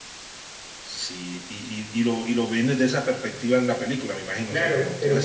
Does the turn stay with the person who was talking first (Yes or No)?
No